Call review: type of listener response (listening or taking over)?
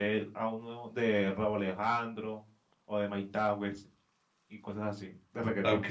taking over